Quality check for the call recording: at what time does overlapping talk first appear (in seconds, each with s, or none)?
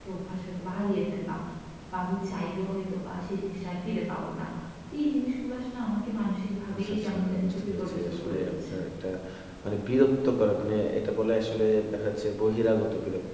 6.7 s